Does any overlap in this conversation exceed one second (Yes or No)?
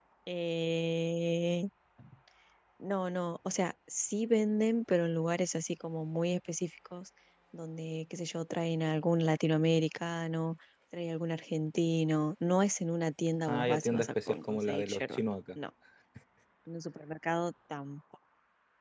Yes